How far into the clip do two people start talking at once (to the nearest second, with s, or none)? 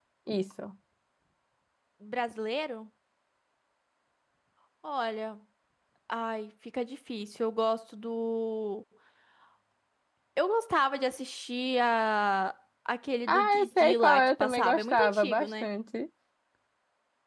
13 s